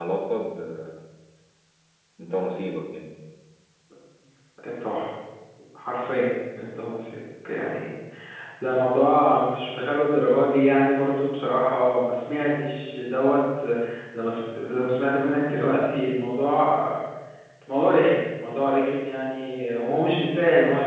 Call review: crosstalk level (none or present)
none